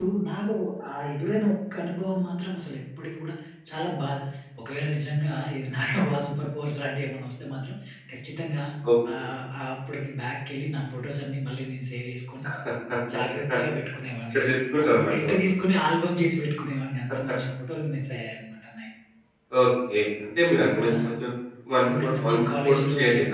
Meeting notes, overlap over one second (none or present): present